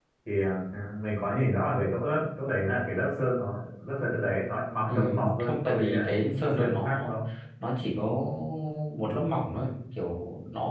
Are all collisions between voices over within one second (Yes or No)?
No